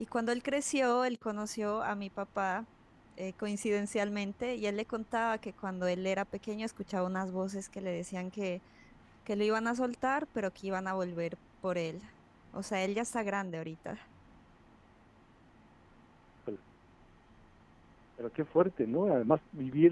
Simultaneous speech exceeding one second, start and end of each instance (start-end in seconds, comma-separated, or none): none